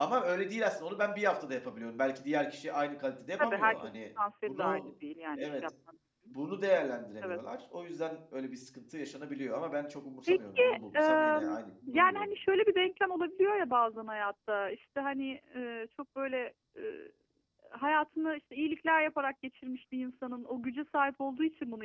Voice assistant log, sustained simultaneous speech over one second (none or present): present